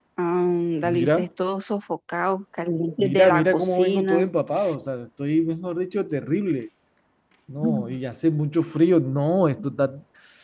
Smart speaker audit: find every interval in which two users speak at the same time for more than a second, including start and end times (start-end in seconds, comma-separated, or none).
3.0-4.2